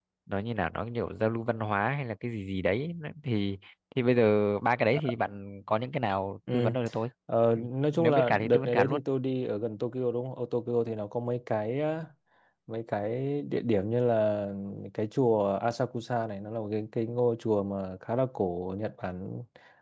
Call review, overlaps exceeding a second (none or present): present